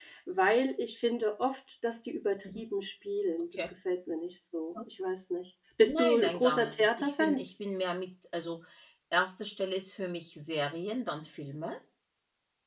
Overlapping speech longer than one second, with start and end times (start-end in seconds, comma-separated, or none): 5.9-7.4